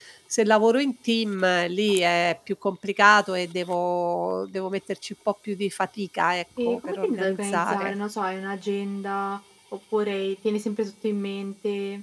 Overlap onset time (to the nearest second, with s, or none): 7 s